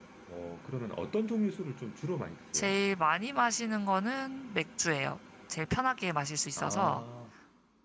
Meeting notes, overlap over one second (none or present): none